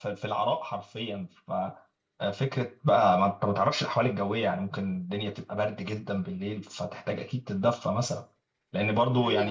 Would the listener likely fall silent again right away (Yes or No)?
Yes